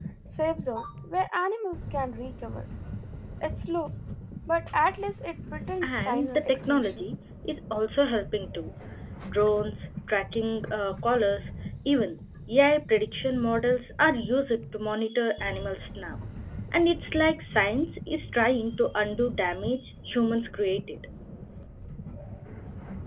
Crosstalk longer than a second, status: present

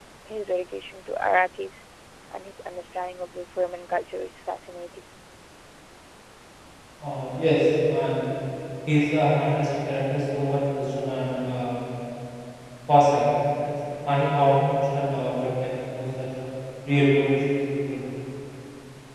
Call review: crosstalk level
none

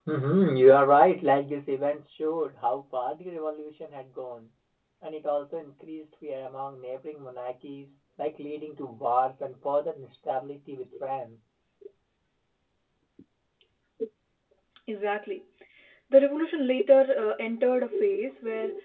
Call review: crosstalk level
none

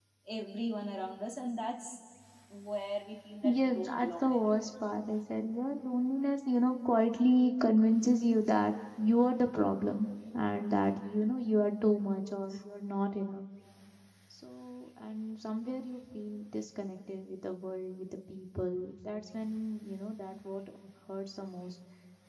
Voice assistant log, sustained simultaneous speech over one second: present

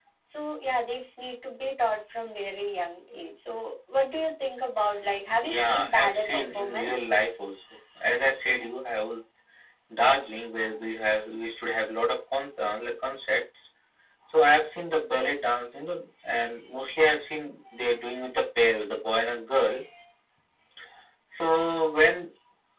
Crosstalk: present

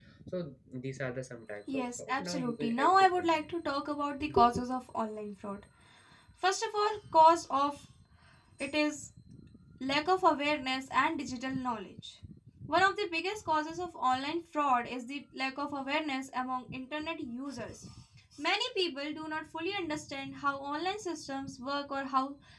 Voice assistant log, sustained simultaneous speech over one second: present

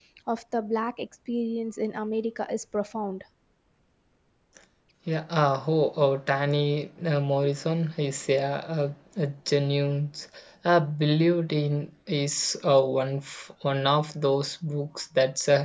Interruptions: none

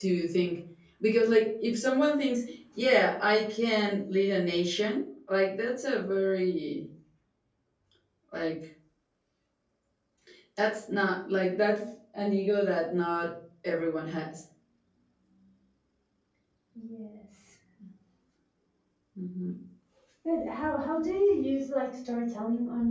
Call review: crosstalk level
none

